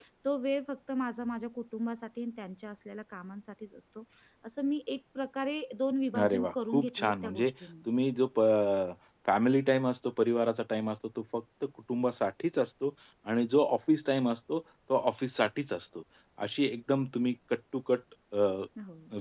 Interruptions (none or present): present